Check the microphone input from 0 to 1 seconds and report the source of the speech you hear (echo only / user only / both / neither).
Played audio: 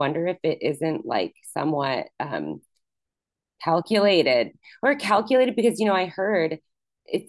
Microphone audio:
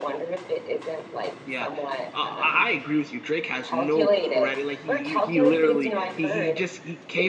echo only